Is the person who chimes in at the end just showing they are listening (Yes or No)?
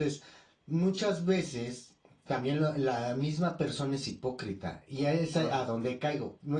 Yes